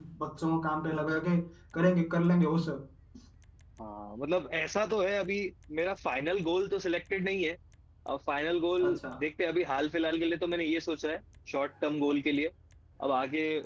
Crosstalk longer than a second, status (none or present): none